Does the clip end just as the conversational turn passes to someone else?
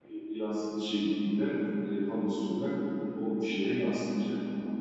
Yes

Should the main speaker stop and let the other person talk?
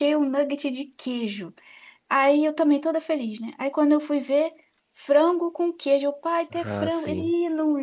No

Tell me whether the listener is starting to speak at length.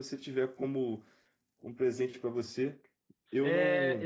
Yes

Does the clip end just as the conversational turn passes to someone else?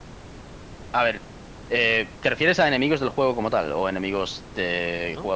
Yes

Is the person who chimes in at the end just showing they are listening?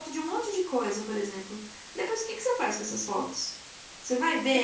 No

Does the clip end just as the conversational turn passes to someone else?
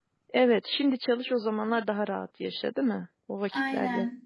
Yes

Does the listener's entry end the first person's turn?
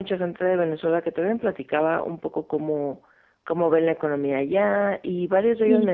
No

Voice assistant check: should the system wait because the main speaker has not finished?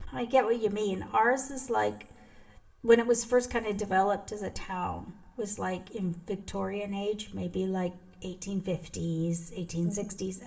Yes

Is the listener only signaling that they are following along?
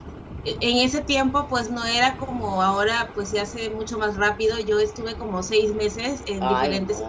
Yes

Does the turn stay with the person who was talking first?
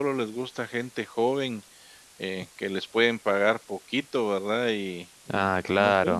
No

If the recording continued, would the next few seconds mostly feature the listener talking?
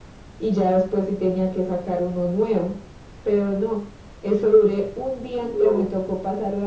No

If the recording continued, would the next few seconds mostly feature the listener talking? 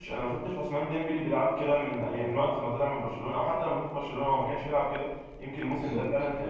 No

